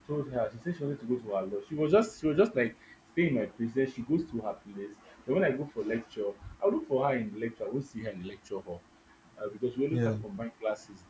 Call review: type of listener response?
listening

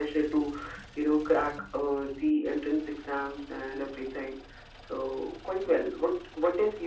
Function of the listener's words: listening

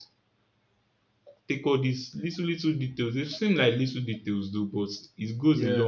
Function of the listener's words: listening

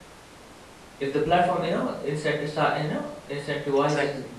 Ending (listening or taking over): listening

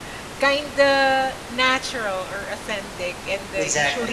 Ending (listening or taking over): listening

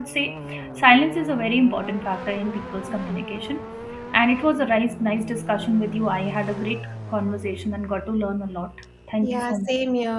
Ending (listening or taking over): taking over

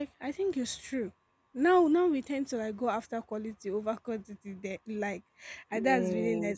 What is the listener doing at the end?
listening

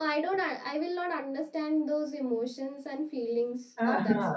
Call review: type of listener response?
taking over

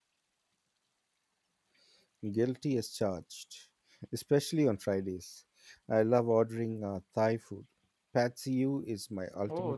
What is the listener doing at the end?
taking over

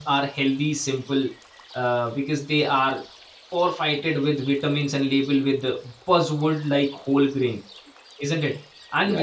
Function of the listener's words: taking over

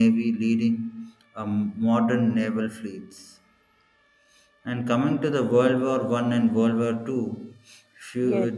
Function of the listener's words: taking over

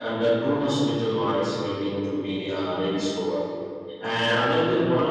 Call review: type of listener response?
listening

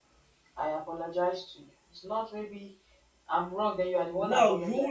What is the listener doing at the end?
taking over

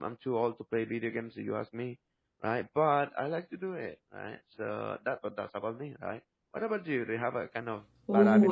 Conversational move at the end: taking over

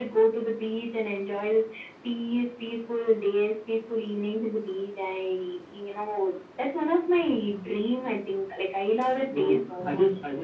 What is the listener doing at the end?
taking over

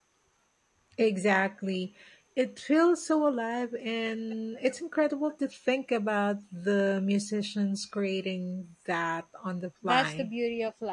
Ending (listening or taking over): taking over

